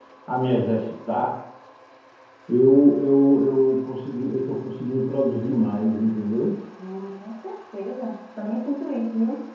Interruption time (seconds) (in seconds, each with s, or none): none